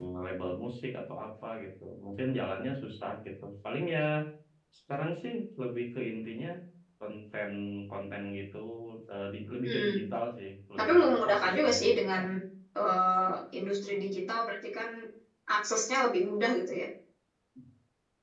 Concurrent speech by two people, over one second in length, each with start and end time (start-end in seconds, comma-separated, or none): 10.8-12.2